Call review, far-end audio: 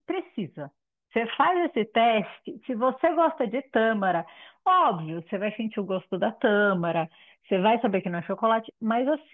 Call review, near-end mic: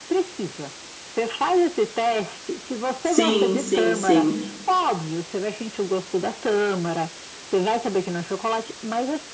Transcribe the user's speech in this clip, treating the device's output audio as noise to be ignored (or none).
sim, sim, sim.